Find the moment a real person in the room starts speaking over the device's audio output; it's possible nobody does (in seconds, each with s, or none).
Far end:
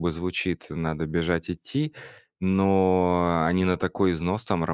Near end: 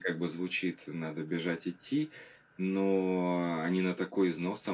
none